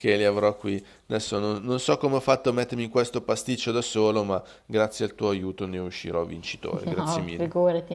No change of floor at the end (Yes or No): No